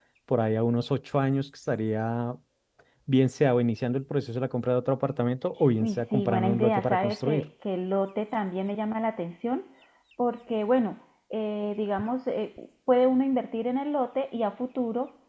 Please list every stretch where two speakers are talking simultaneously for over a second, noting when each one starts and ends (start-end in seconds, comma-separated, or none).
5.8-7.5